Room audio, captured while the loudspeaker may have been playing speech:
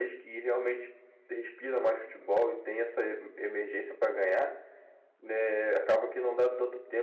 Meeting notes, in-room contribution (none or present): present